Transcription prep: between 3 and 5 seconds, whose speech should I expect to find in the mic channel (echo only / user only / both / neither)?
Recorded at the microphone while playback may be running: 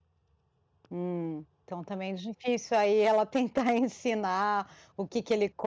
user only